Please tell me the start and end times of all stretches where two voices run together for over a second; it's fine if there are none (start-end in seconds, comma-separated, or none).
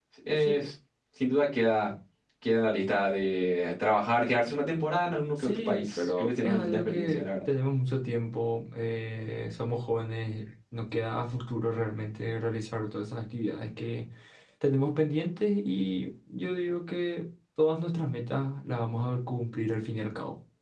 5.4-7.2